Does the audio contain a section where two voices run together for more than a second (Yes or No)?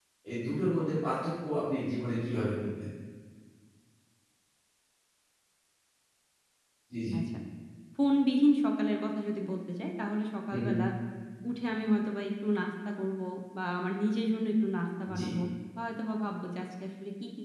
No